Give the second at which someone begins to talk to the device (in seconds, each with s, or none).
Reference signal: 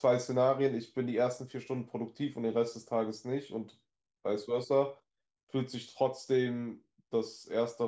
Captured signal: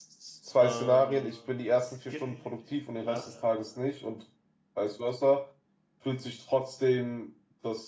0.6 s